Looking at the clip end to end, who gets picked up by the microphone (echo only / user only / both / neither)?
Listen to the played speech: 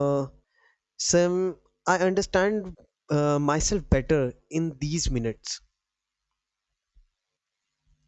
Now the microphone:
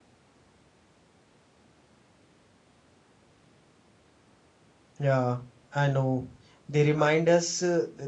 user only